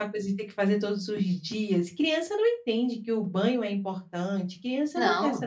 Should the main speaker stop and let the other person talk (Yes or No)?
No